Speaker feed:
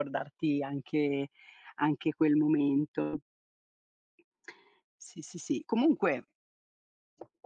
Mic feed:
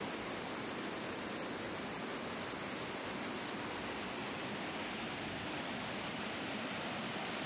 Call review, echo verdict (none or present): none